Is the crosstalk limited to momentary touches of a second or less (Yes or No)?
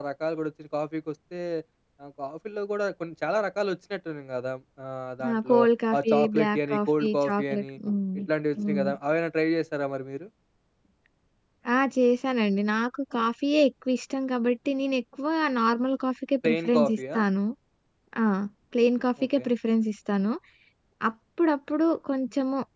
No